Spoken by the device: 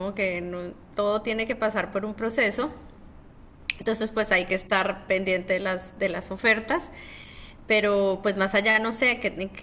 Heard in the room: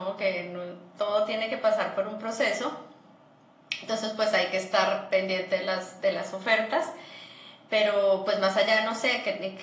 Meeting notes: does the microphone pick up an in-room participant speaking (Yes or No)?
No